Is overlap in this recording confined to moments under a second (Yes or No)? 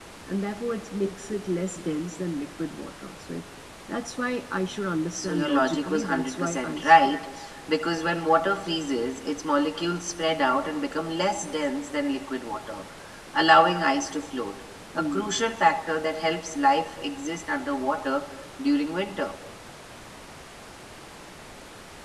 No